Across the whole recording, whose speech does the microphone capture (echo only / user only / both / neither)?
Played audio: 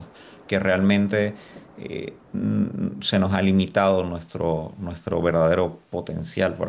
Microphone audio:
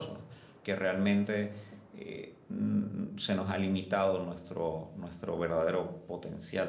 echo only